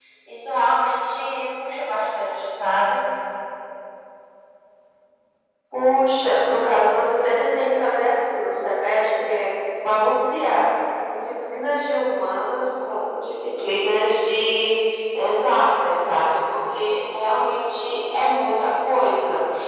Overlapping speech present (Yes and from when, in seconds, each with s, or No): No